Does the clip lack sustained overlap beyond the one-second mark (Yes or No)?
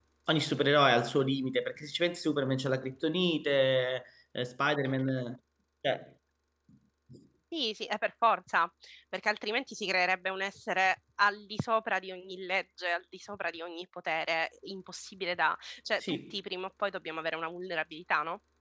Yes